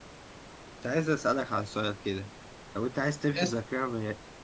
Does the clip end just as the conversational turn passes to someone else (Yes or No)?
No